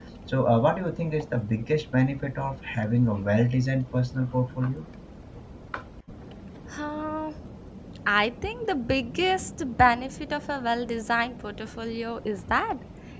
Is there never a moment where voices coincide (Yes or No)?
Yes